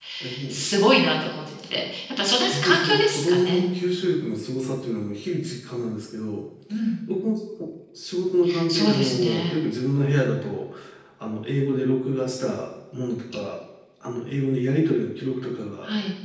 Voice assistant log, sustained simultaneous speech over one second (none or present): present